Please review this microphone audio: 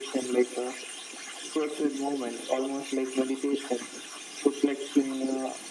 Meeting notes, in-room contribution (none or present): none